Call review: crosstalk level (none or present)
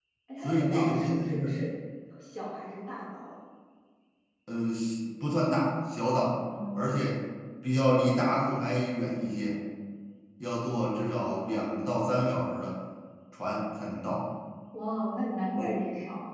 present